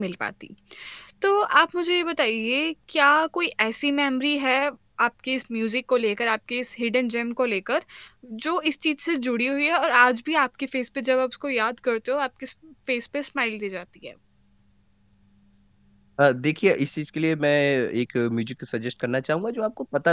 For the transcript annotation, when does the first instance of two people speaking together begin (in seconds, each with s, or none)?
none